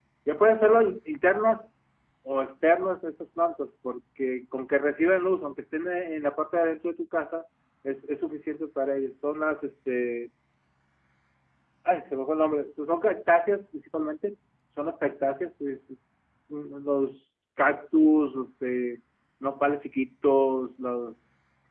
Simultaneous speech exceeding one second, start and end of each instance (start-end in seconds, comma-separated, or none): none